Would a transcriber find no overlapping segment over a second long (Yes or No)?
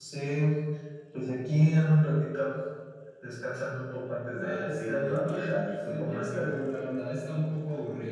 No